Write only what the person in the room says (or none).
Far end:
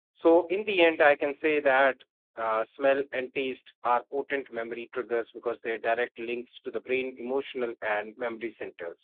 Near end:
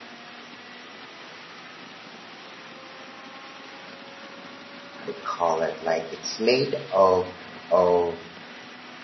they call it like it's made of of